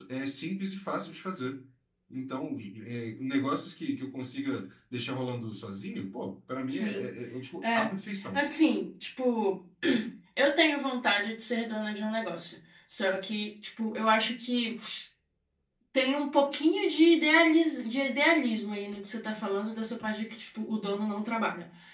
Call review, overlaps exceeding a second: none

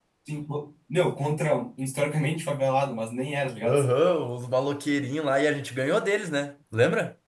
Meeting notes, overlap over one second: none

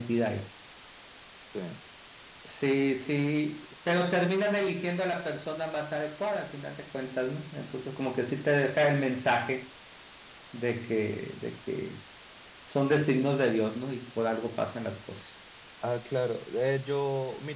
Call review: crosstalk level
none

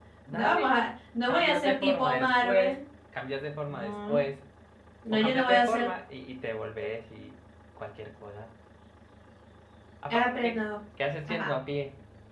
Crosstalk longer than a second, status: present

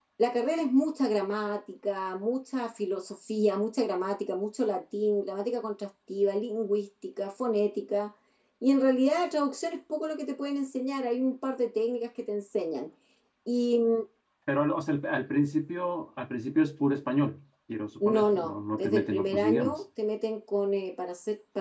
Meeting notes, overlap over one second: present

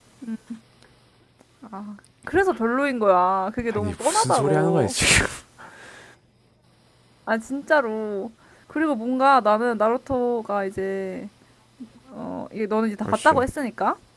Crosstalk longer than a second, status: present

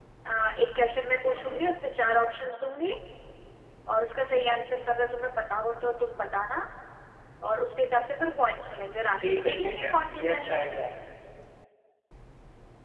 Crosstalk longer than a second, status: present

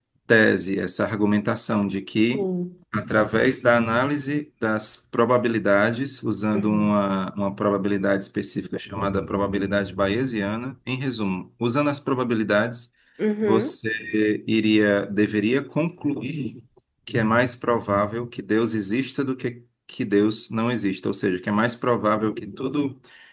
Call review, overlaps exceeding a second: none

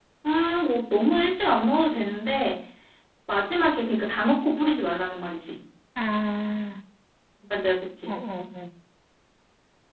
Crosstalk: none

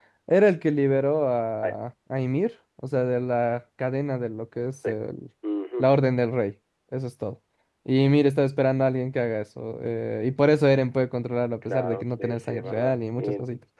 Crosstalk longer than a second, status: present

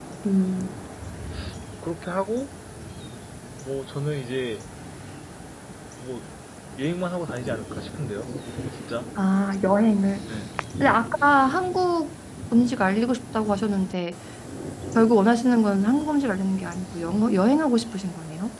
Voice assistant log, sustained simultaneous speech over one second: none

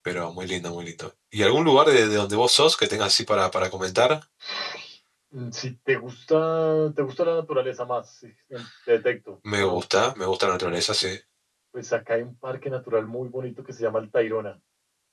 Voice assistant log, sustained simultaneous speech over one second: none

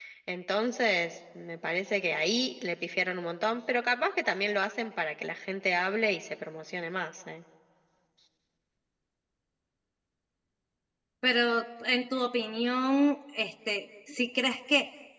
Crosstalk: none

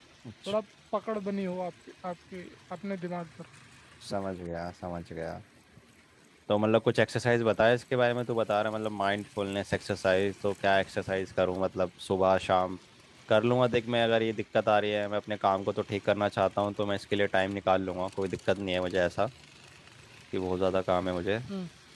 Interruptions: none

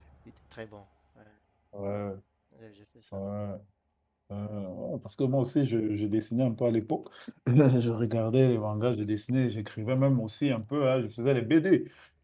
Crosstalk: none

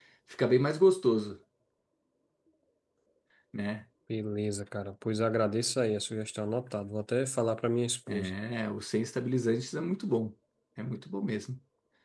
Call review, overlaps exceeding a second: none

